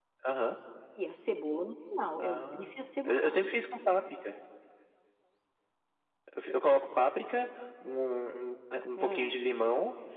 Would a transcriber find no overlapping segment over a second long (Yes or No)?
Yes